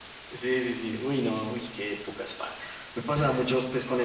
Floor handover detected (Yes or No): No